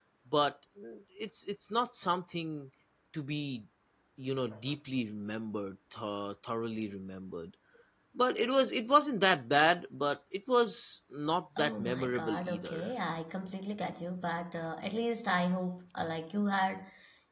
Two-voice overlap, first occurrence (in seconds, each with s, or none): 11.6 s